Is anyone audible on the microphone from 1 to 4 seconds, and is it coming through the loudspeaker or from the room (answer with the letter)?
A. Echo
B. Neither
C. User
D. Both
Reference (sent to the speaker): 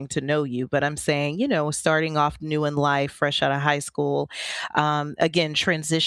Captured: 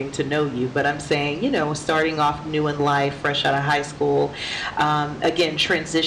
A